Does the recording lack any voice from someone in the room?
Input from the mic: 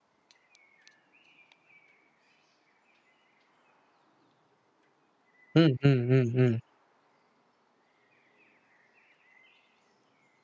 No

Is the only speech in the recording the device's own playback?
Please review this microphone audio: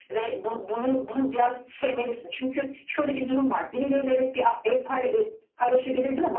Yes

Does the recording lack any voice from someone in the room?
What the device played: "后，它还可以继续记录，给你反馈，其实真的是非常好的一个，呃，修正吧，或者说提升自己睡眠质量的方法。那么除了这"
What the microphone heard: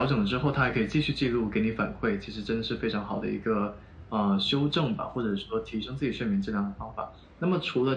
Yes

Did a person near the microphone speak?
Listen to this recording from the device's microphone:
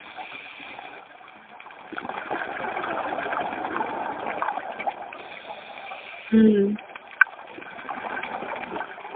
Yes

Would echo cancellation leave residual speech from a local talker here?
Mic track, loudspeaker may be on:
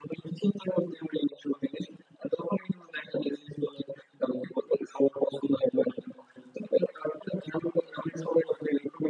No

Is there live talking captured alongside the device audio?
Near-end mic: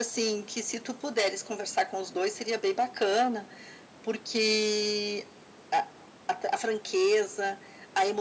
No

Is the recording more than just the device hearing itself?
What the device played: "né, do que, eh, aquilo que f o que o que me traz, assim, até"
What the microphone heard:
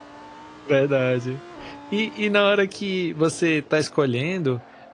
Yes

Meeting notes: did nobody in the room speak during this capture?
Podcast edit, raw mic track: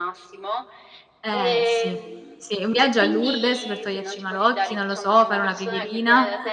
No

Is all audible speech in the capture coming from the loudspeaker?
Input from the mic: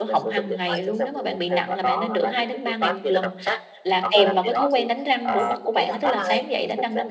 No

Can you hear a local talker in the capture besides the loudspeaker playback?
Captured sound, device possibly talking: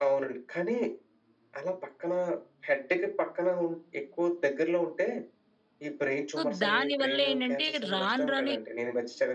Yes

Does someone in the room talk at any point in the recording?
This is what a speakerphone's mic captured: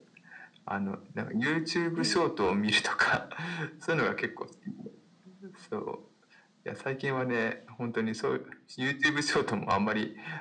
Yes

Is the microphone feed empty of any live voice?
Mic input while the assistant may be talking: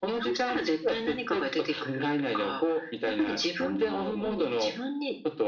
Yes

